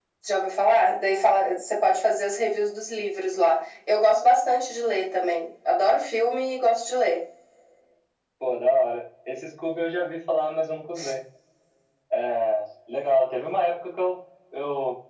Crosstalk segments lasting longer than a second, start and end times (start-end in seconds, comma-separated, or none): none